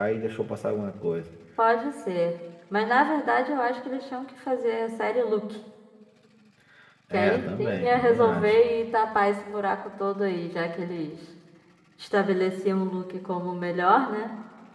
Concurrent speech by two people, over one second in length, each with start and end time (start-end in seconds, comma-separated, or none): 7.1-8.6